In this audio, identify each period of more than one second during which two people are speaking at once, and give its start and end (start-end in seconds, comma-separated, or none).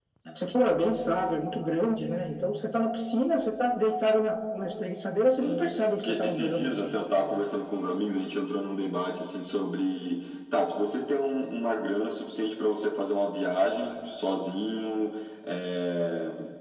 5.4-6.9